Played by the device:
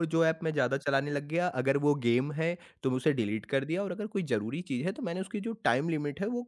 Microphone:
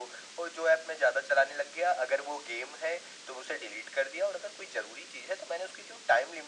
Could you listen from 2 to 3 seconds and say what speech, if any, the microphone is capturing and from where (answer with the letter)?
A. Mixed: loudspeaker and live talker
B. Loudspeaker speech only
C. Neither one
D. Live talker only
B